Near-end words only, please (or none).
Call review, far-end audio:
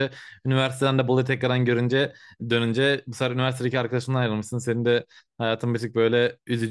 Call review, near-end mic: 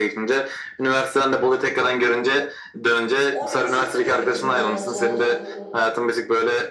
11. sınıfta bir öyle bizim dağılmamız oldu.